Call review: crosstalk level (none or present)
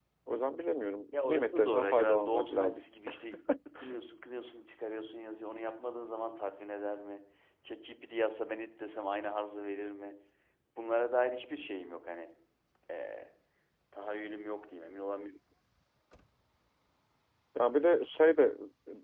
present